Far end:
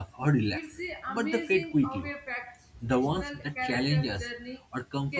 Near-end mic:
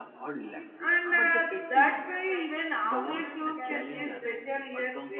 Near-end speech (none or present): present